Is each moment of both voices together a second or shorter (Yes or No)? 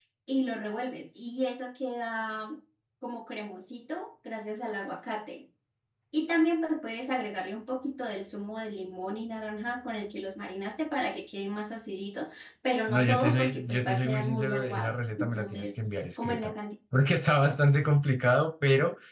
No